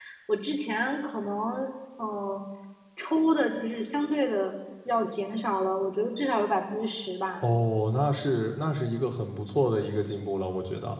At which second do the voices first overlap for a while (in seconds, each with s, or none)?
none